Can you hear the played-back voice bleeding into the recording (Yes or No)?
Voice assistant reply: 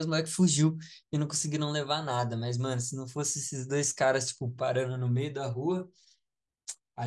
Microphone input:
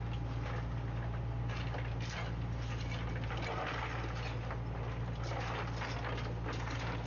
No